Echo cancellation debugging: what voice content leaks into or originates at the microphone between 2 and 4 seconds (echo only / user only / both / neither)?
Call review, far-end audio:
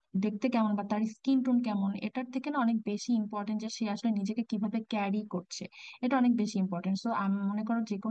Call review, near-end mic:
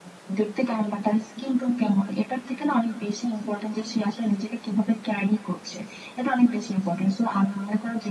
echo only